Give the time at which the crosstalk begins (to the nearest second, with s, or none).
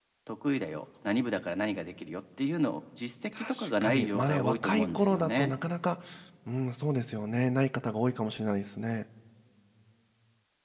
3 s